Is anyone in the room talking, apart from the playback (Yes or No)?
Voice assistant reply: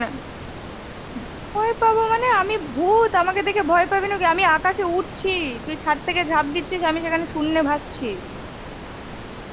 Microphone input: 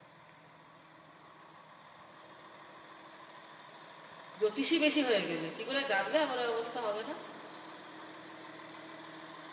Yes